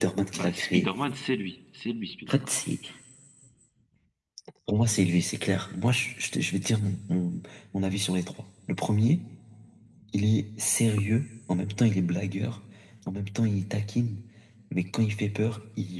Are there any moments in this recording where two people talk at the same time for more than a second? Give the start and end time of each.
none

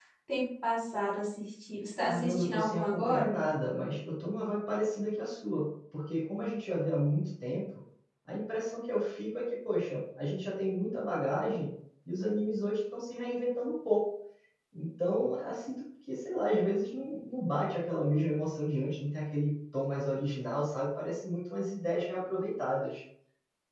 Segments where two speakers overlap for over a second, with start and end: 2.0-3.4

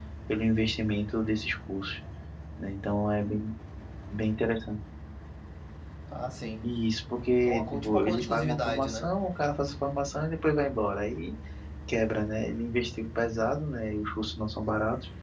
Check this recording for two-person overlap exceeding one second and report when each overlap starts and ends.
7.3-9.1

